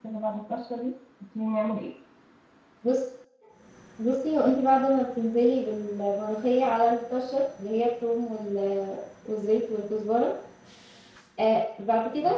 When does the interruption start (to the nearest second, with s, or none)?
none